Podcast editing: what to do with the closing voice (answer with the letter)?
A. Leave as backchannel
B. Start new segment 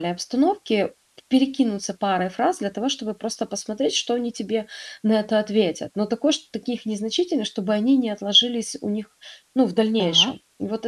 A